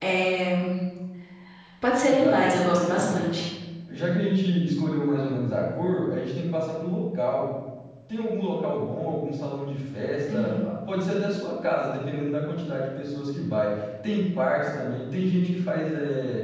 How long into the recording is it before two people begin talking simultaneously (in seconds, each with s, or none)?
2.0 s